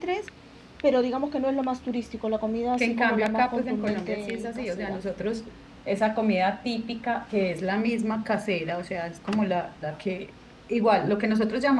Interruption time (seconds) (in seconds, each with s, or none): 2.8 s